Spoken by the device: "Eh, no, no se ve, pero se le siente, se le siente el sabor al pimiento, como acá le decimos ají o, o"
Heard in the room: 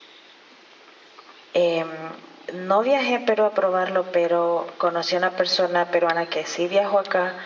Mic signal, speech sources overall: user only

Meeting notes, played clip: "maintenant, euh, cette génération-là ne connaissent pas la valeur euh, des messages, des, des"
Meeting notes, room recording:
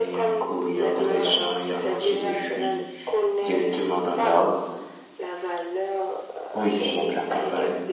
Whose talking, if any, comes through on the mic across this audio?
both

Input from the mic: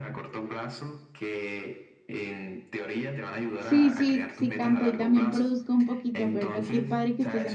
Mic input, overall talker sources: both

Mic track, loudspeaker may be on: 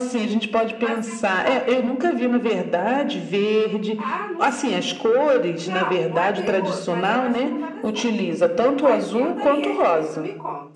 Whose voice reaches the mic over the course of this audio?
both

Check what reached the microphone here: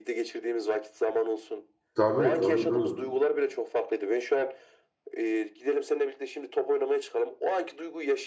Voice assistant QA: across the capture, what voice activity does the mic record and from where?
both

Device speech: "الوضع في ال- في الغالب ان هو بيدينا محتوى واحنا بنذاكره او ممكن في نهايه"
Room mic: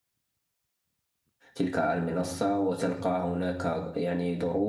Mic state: user only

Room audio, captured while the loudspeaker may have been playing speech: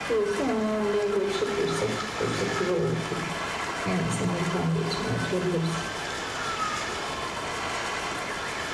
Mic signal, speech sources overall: echo only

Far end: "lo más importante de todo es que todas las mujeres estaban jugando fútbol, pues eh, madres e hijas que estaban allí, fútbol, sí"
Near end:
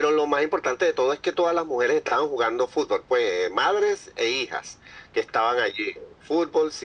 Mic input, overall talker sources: echo only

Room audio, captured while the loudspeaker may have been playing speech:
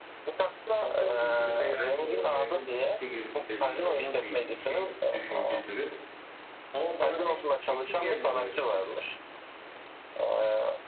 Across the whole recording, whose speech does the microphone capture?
both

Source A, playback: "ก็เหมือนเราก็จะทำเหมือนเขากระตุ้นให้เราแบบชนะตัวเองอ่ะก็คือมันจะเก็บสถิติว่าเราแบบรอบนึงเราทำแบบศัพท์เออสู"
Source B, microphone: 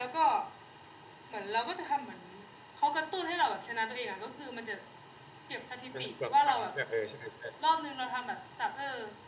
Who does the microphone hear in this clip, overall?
both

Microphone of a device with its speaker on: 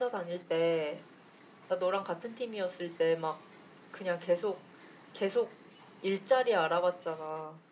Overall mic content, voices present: echo only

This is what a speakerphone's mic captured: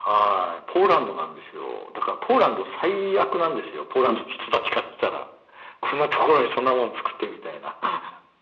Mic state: echo only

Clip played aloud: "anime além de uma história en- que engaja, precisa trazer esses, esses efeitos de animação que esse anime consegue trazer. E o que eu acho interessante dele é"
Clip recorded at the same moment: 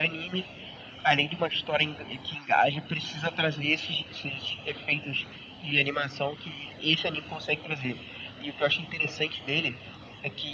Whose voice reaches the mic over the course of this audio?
echo only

